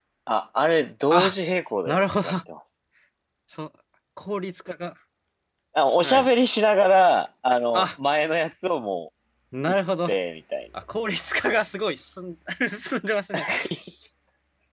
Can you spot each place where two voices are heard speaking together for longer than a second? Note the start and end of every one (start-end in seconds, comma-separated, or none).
none